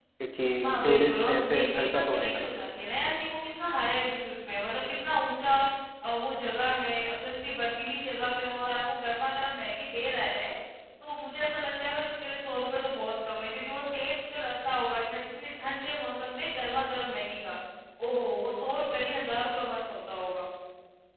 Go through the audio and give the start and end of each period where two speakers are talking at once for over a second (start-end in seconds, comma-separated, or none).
0.6-2.4